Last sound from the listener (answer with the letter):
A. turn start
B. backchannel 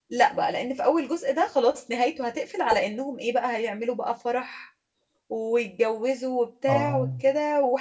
B